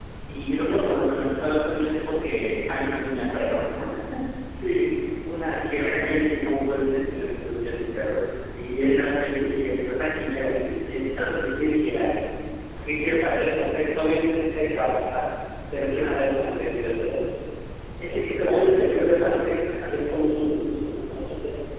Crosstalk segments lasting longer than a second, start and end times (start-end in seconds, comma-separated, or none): 18.1-19.4